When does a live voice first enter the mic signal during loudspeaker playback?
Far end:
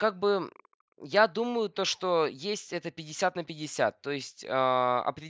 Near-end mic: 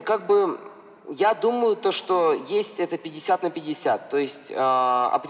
none

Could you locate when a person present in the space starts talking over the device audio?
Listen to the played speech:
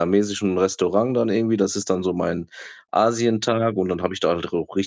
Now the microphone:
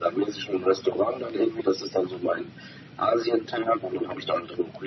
none

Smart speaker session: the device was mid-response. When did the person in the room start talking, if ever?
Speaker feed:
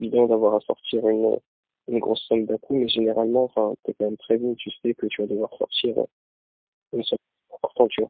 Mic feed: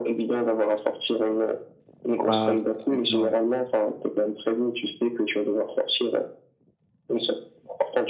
2.2 s

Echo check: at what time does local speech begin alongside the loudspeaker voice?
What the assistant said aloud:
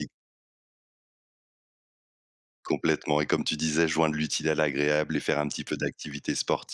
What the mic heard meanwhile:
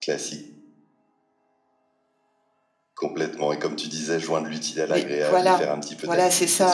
4.9 s

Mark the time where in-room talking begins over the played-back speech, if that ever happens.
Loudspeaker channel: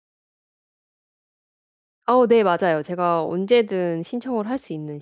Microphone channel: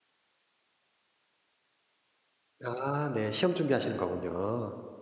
2.6 s

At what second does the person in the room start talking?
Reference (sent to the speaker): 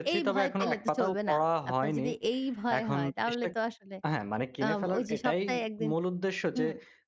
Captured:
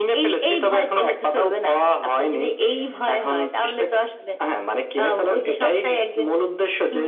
none

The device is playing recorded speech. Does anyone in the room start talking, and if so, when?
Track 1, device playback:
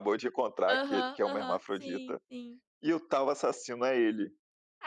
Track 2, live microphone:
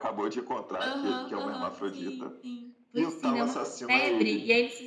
2.9 s

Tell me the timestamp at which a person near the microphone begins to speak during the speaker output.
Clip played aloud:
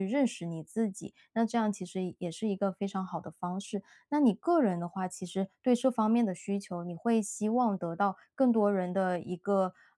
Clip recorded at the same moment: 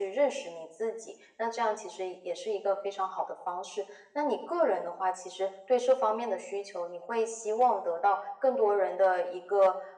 none

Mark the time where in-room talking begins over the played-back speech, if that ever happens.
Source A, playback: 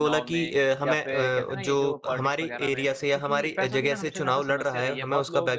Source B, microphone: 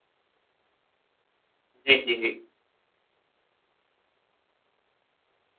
1.9 s

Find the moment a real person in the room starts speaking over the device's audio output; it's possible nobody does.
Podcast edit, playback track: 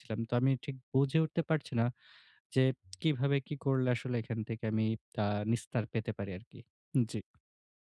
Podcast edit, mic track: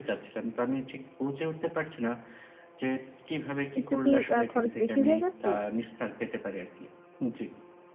3.8 s

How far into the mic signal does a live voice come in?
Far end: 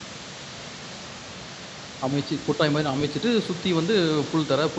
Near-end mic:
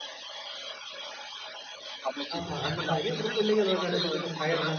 2.4 s

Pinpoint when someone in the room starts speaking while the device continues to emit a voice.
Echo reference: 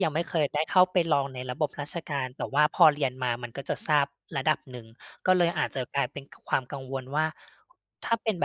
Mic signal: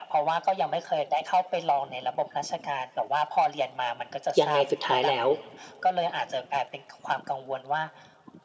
4.4 s

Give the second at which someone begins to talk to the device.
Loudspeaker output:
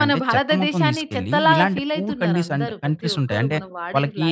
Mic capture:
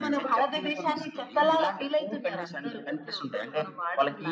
none

